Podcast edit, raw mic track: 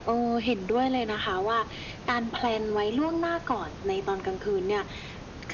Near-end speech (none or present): none